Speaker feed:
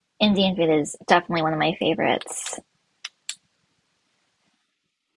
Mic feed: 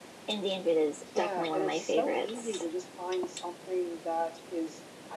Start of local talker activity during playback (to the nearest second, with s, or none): 1 s